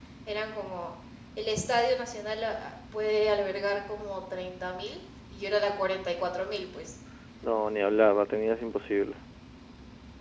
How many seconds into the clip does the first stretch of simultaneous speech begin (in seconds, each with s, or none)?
none